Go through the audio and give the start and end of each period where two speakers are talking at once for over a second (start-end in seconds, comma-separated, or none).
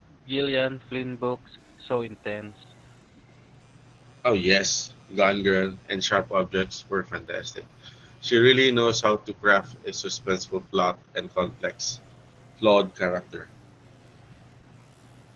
none